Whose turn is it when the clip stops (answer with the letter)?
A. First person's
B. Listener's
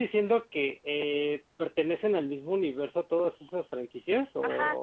B